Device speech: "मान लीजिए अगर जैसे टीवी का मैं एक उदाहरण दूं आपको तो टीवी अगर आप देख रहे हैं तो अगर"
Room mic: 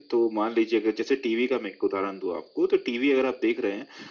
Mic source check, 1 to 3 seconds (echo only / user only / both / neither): echo only